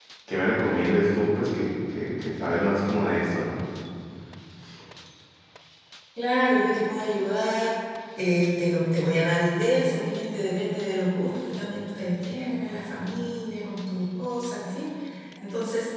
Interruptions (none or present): none